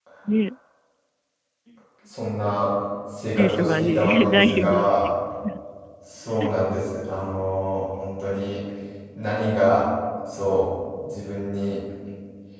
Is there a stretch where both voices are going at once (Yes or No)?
Yes